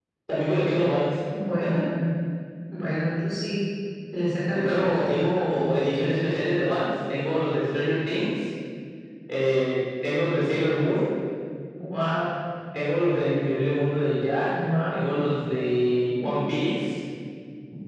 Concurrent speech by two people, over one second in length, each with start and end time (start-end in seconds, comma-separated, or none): 4.5-5.9